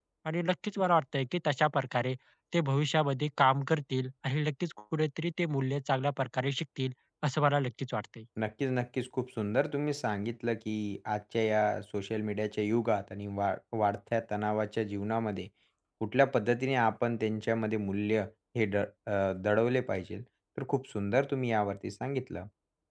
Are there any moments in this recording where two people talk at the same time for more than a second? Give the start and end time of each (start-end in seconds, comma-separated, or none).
none